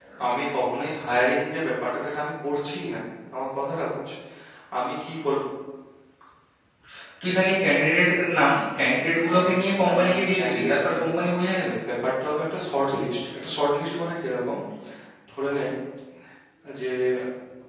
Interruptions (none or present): present